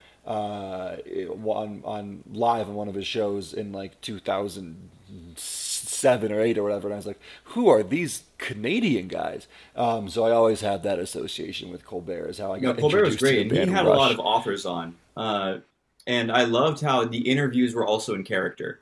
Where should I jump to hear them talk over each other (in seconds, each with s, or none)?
12.6 s